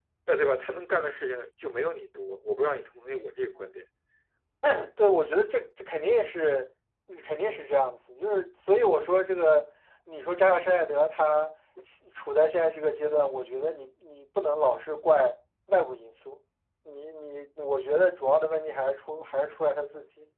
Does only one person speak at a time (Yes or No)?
Yes